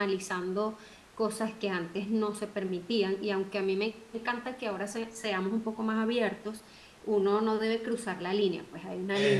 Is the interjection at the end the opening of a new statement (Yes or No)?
No